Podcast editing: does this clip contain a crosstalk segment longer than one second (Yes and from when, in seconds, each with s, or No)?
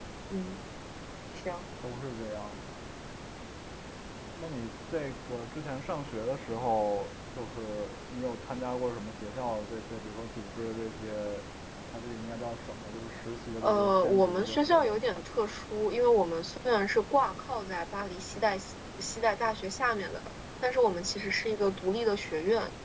Yes, from 13.6 s